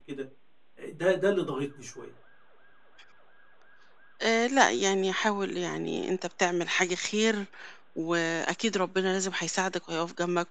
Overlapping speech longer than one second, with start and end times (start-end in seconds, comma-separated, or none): none